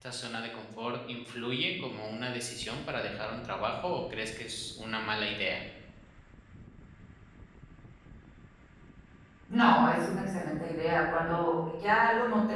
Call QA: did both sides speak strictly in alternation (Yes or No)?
Yes